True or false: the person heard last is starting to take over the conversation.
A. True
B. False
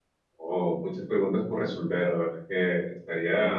B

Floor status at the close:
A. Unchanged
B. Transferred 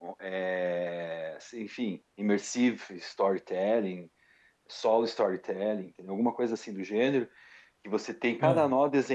A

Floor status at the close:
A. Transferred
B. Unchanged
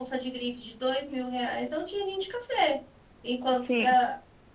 B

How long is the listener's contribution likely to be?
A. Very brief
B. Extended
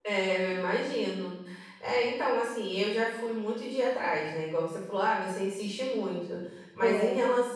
A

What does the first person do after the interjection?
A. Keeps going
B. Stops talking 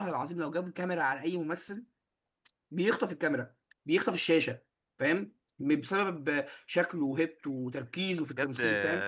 B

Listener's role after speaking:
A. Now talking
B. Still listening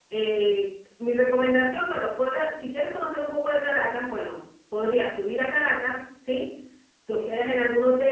B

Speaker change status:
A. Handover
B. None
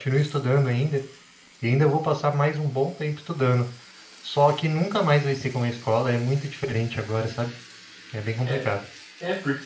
A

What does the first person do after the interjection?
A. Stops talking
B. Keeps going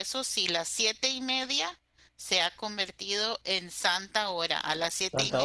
B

